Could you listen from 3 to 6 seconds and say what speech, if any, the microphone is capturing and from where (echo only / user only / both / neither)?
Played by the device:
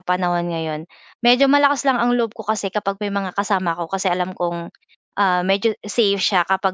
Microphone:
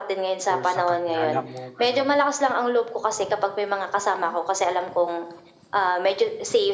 echo only